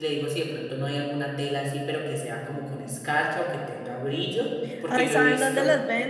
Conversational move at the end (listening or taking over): taking over